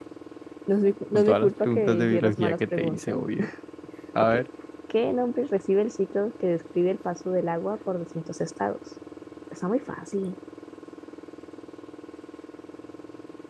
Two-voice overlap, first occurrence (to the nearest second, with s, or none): 1 s